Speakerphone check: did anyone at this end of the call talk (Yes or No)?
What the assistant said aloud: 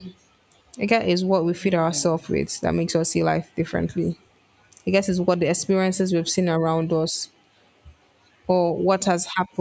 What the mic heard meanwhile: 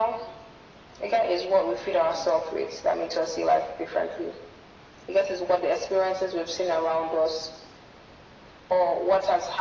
No